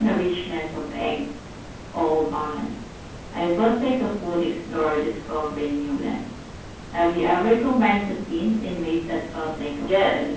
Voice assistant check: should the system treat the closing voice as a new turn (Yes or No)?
Yes